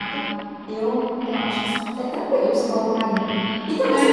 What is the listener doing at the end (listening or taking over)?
taking over